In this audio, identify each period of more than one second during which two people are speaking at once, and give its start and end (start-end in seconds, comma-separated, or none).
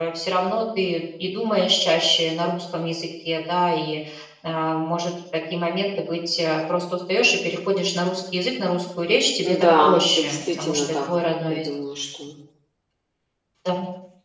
9.6-10.8